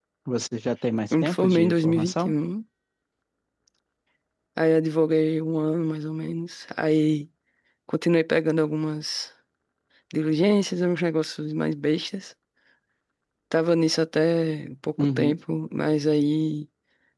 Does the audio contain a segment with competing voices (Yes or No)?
Yes